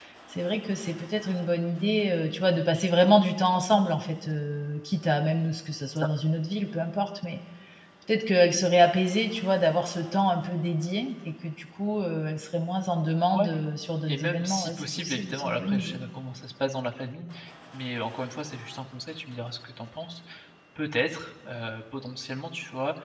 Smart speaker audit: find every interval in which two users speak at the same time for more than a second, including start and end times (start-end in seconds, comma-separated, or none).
14.1-16.0